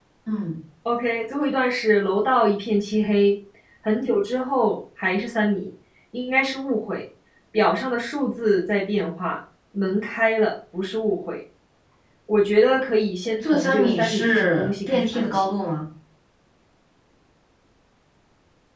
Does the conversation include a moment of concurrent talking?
Yes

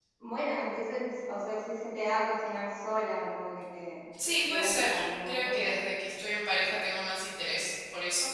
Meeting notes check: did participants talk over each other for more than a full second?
Yes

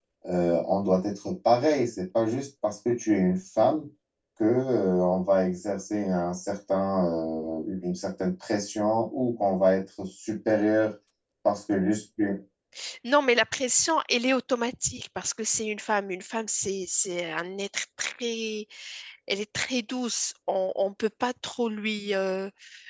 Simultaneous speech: No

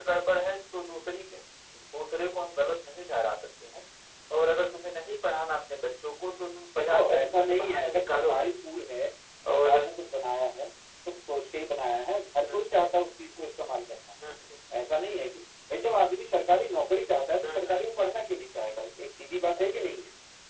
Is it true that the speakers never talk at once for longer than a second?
No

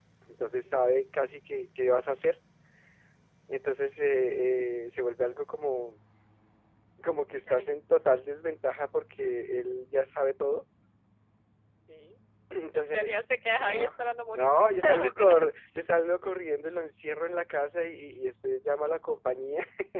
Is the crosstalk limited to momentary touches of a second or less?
No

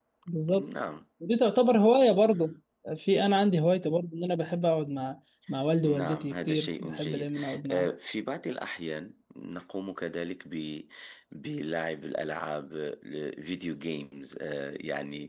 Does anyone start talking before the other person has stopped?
Yes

